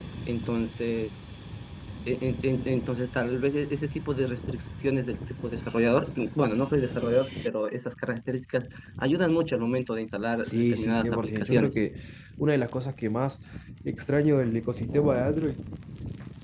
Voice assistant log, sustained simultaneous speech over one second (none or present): present